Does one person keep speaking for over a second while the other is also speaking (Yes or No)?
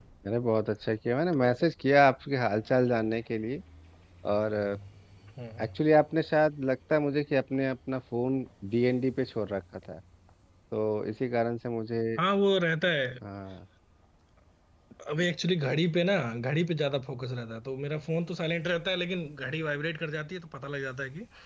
No